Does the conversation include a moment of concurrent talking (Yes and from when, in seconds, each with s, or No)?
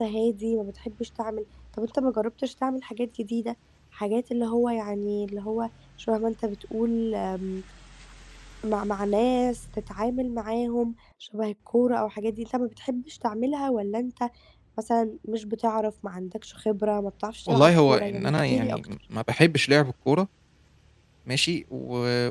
Yes, from 17.5 s